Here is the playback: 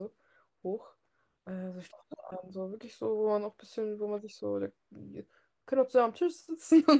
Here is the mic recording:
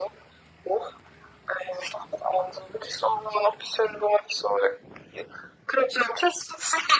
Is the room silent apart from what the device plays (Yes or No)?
Yes